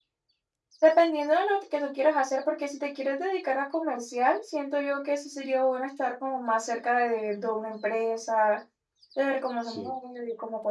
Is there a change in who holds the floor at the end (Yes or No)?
No